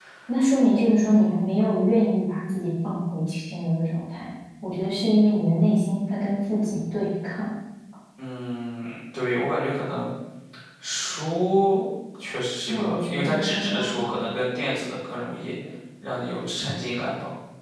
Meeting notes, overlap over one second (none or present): present